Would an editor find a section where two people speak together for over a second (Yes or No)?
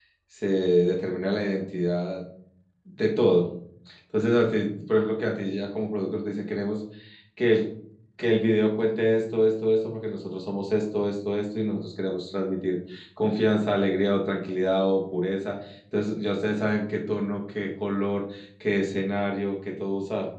No